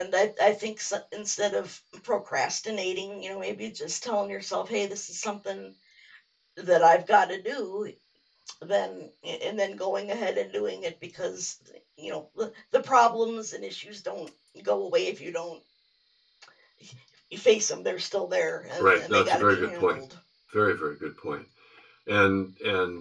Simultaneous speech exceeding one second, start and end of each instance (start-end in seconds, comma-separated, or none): 18.8-20.0